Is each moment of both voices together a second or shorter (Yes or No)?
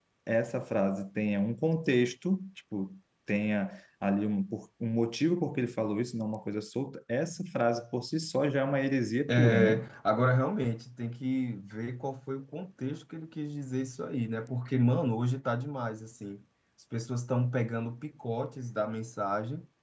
Yes